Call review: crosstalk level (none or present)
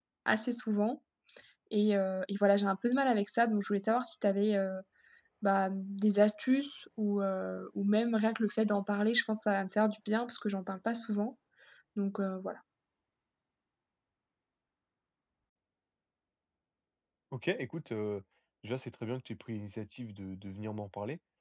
none